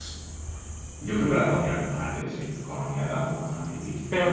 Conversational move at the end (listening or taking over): taking over